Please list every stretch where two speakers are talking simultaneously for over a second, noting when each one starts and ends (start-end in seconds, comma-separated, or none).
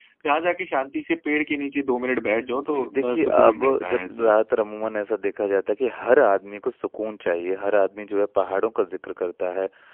2.5-4.3